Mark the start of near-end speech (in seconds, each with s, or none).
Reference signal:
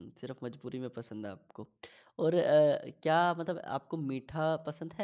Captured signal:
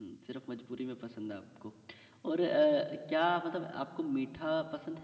none